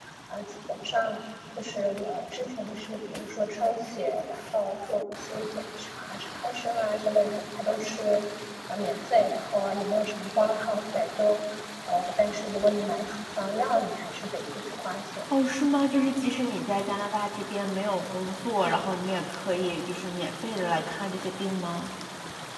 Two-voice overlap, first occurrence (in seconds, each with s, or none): none